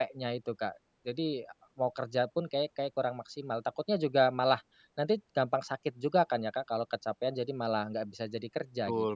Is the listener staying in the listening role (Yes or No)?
No